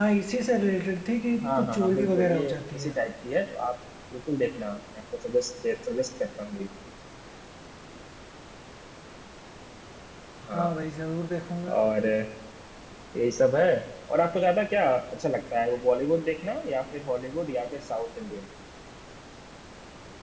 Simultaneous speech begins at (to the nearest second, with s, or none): 1 s